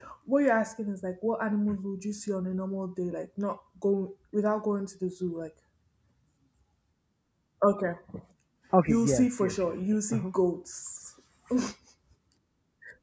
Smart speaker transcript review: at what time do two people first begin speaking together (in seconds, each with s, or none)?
8.9 s